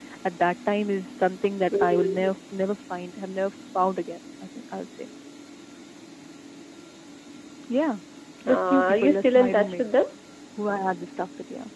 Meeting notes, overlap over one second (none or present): present